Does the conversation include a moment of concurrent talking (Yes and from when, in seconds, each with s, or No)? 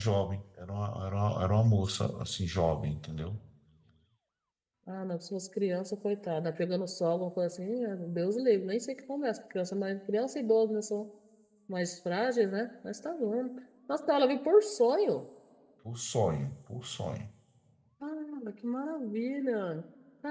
No